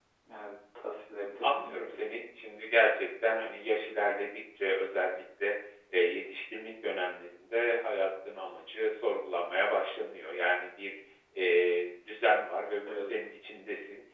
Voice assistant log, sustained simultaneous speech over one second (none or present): none